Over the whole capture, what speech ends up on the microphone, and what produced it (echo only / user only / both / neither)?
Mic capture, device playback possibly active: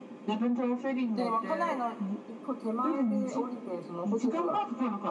both